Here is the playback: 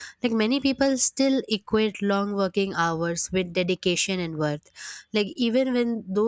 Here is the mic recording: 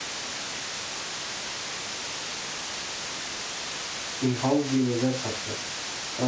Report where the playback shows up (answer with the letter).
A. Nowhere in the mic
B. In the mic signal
A